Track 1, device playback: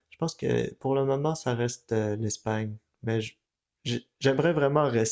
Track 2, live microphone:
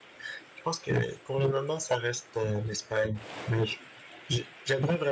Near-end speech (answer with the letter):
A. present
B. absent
B